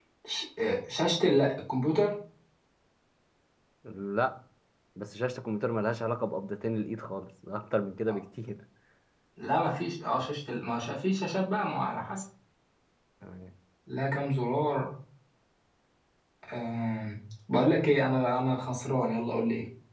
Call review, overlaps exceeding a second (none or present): none